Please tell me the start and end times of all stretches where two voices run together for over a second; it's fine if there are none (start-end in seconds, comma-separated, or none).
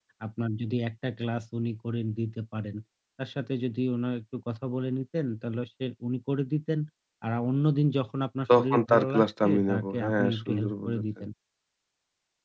8.6-11.2